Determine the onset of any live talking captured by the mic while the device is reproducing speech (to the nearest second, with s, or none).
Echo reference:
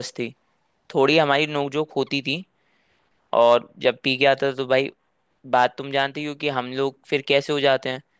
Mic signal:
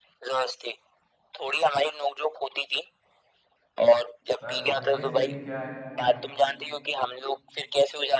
4 s